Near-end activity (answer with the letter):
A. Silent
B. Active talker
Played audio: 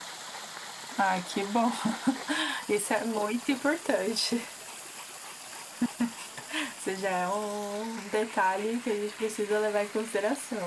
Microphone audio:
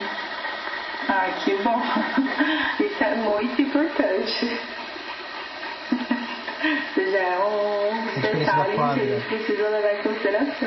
B